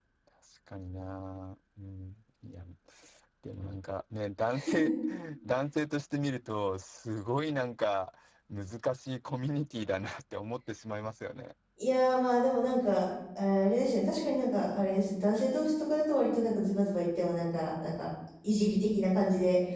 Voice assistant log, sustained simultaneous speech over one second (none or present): none